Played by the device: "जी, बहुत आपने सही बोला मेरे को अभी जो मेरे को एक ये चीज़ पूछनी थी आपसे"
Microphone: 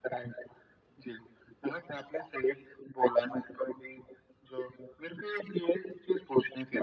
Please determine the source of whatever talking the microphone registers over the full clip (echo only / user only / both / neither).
echo only